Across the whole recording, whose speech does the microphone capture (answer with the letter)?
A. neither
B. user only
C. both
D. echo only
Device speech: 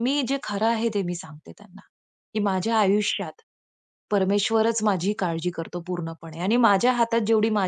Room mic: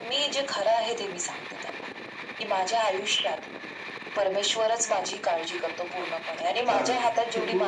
C